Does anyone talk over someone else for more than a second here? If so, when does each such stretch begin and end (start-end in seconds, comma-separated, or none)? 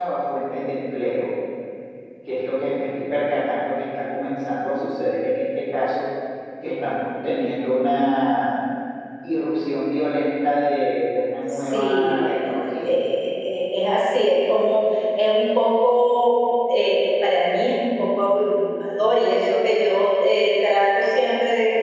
11.5-12.9